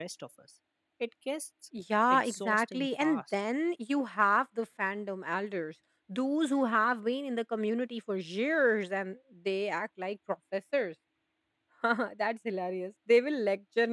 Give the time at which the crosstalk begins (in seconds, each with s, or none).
2.1 s